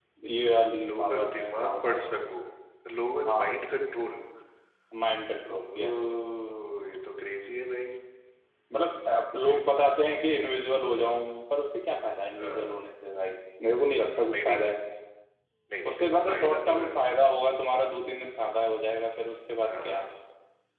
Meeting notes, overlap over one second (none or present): present